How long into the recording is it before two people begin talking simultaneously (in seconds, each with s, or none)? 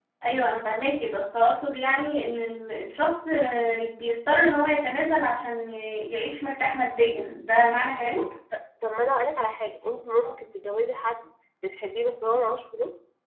none